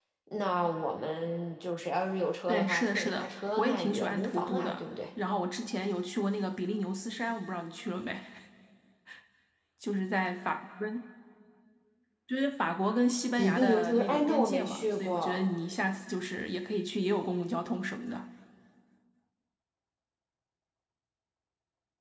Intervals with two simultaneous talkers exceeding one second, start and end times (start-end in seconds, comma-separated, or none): 2.5-4.8, 13.4-15.4